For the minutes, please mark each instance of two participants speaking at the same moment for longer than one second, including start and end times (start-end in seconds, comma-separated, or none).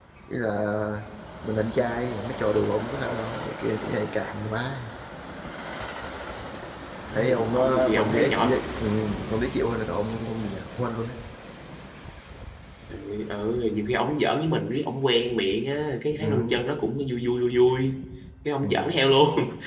7.1-8.6